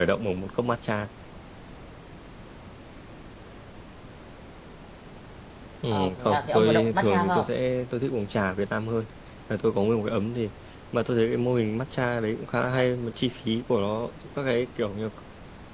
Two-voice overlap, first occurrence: 5.9 s

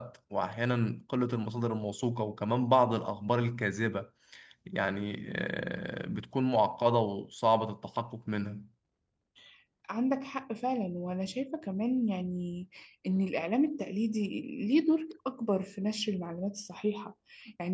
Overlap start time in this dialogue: none

